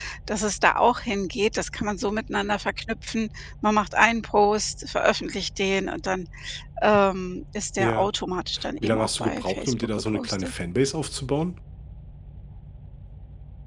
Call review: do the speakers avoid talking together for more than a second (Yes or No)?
No